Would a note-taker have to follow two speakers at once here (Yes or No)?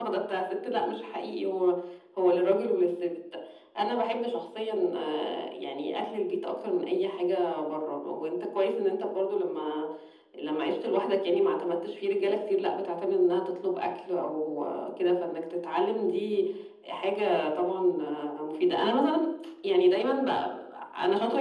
No